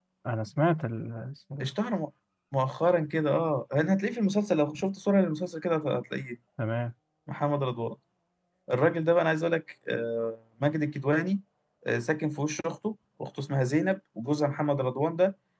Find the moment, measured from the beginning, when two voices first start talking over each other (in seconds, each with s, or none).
none